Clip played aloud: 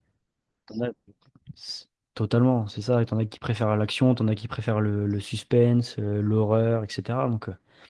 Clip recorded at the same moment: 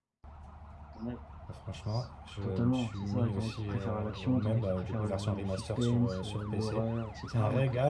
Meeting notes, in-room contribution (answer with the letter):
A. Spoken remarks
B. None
A